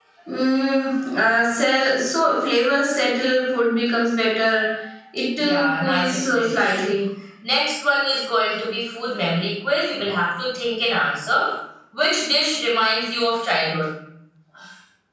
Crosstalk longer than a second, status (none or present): present